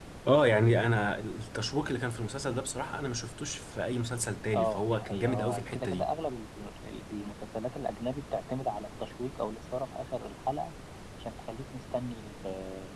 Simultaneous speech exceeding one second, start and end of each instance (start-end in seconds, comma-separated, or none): 4.5-6.1